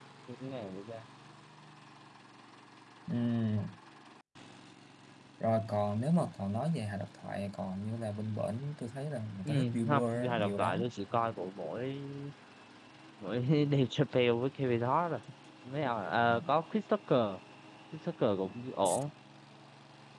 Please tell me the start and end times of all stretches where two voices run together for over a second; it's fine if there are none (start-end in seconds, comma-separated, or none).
9.4-10.8